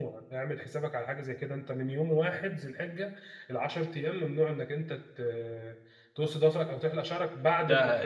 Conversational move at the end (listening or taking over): taking over